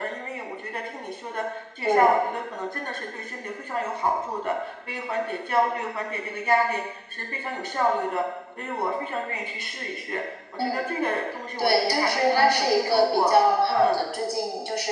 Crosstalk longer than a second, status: present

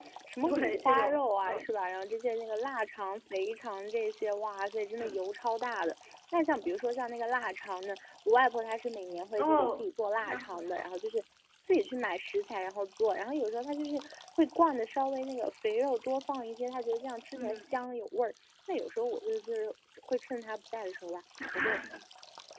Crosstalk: present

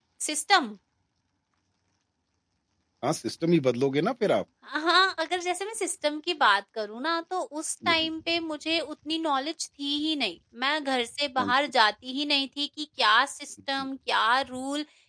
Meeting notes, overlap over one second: none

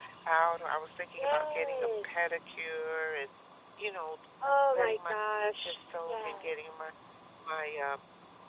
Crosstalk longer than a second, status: present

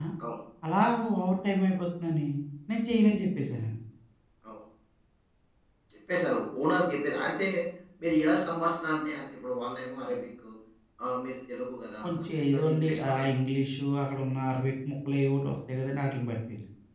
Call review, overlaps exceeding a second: present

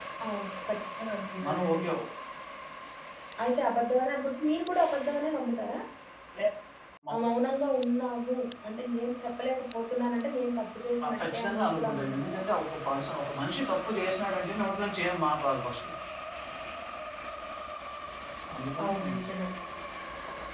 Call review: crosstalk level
present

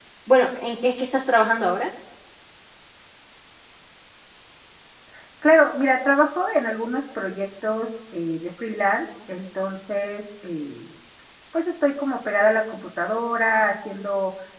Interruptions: none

